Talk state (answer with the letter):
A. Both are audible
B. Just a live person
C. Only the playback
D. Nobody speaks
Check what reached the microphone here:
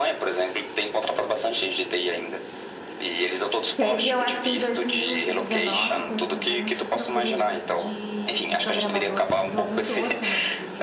A